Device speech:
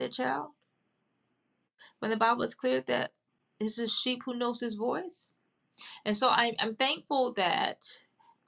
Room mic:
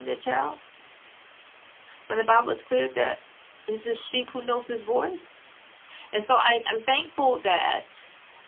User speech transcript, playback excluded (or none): none